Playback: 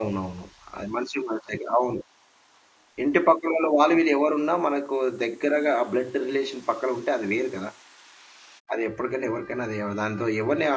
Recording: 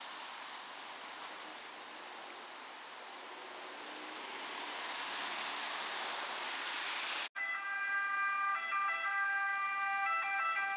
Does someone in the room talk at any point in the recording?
No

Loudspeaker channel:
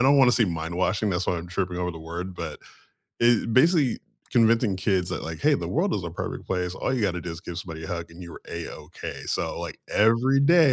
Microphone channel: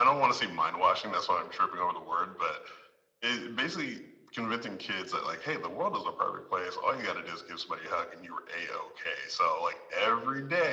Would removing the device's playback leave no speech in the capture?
Yes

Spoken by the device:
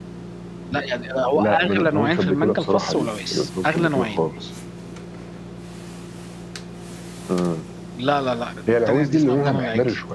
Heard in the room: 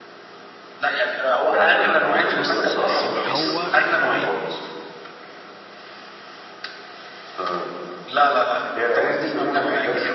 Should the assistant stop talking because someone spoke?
Yes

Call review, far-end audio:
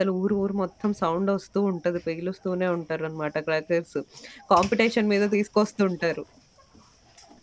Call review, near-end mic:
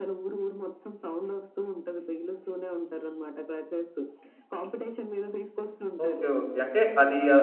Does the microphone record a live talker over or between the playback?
Yes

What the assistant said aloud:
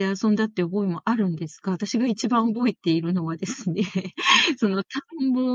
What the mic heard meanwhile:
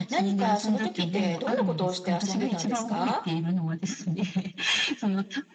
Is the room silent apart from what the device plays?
No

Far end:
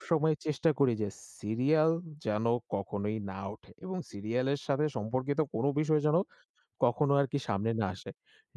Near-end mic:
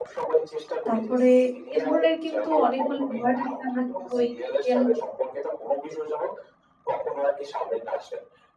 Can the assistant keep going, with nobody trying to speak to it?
No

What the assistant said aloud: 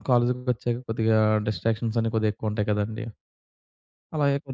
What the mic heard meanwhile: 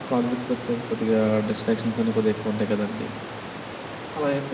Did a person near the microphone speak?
No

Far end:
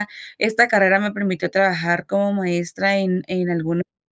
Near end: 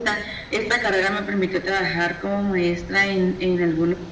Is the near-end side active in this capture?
No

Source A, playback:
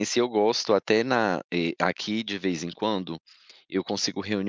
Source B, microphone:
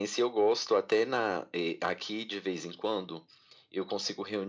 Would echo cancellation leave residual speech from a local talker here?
No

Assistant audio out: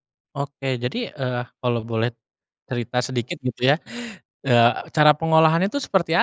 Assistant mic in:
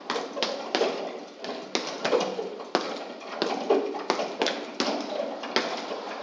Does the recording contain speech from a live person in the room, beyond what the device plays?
No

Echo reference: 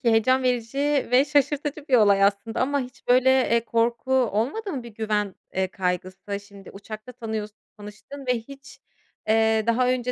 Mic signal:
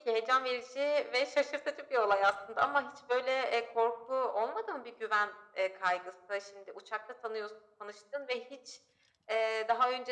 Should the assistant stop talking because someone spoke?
No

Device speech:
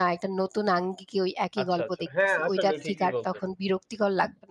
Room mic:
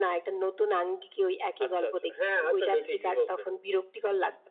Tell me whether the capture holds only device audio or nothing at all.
Yes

